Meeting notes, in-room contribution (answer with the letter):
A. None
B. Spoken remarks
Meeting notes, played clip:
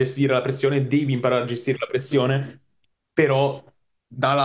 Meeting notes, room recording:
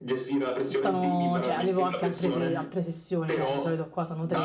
B